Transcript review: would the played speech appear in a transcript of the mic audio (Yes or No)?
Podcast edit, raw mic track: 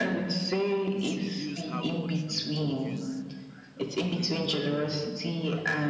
Yes